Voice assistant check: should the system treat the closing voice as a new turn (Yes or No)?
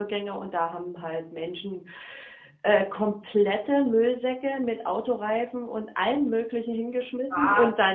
No